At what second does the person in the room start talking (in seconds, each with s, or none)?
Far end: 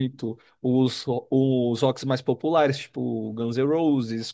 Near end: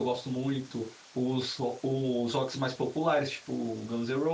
none